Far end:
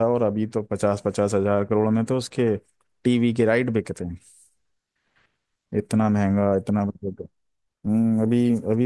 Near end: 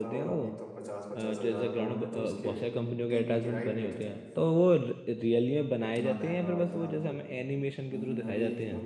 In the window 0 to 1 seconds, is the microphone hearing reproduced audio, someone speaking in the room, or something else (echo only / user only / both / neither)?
both